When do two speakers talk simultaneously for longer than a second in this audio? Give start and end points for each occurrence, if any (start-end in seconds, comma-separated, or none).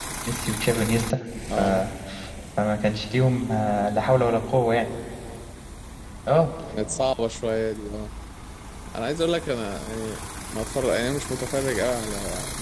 none